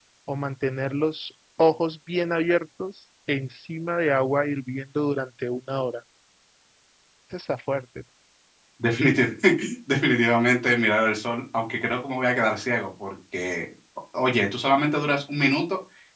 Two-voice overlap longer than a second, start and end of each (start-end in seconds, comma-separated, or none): none